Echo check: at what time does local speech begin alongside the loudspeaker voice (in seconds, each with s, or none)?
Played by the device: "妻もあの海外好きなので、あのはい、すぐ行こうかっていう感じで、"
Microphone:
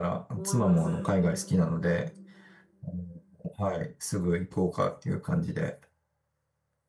0.3 s